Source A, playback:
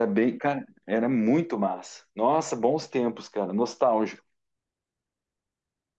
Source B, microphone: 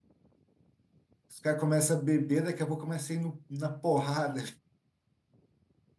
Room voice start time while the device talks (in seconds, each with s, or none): 1.3 s